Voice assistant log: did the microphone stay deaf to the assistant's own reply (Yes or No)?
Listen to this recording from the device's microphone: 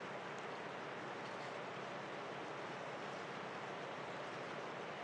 Yes